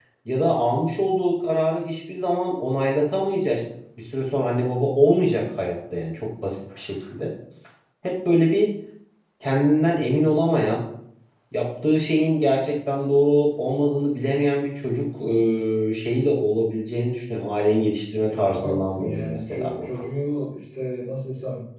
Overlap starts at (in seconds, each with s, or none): 18.3 s